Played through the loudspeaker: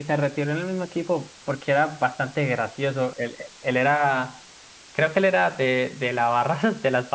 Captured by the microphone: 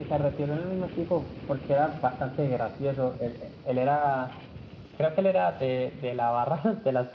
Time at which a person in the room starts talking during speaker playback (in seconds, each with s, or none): none